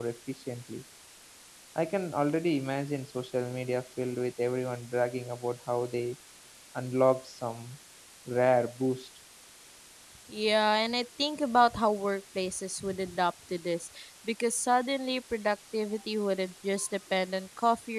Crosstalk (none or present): none